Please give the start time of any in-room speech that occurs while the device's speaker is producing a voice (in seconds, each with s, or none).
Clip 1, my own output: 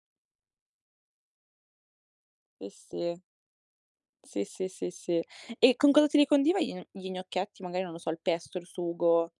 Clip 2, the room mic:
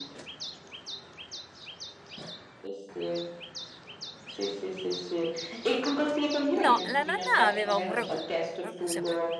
6.6 s